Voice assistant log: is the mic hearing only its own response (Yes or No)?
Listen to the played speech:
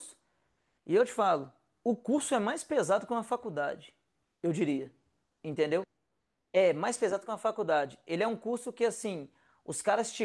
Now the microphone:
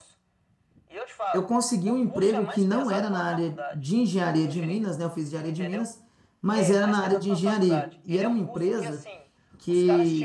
No